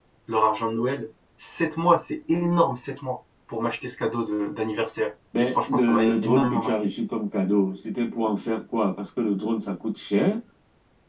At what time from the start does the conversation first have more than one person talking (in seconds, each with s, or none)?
5.3 s